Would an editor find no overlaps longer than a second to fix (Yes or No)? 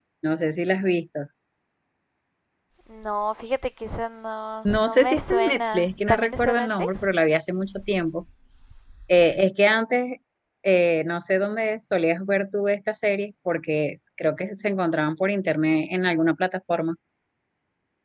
No